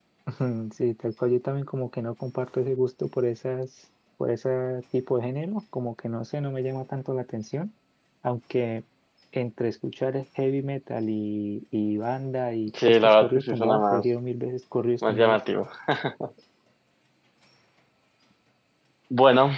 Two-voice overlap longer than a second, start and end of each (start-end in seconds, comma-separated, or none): 12.8-14.0